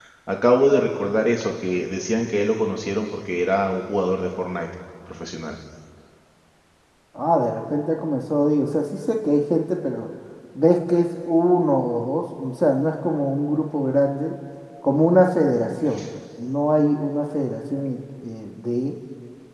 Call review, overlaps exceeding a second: none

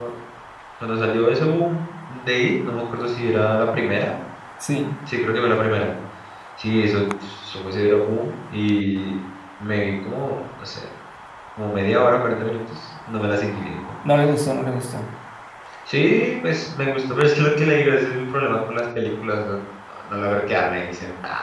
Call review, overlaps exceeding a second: none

